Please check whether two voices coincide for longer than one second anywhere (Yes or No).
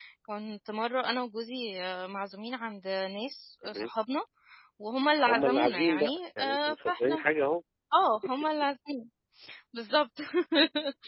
Yes